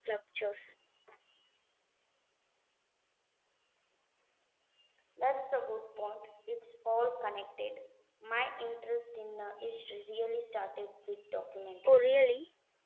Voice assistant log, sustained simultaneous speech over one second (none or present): none